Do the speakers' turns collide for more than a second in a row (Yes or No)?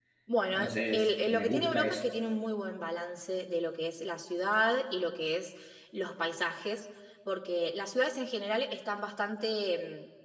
Yes